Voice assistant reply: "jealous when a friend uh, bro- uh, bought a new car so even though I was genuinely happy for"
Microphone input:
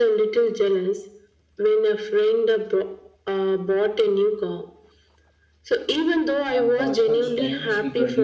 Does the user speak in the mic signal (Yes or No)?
Yes